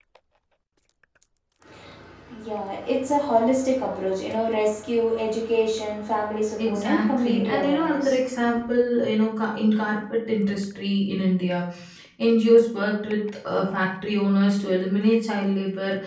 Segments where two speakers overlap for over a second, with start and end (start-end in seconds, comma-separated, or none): 6.6-8.2